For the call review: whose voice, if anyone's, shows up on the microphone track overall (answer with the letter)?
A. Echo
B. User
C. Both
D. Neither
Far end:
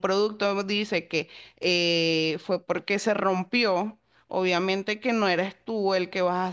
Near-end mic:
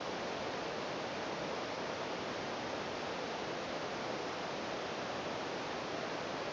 D